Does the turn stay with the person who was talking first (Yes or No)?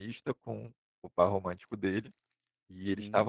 Yes